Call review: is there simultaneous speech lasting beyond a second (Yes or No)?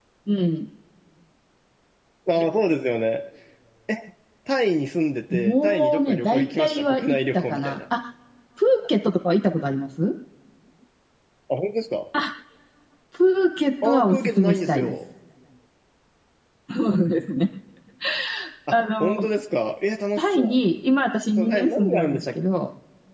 Yes